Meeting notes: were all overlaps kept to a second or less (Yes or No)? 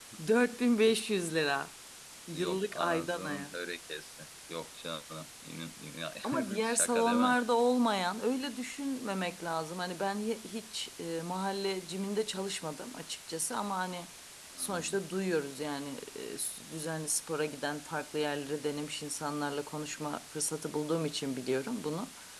No